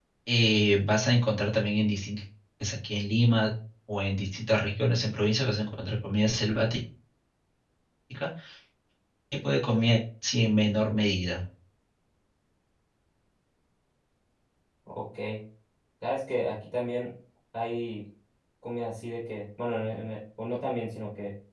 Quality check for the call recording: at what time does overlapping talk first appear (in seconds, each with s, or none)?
none